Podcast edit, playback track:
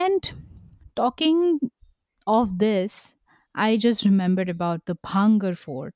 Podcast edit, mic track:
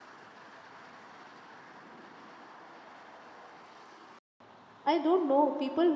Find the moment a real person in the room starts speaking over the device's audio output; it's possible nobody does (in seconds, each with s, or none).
4.9 s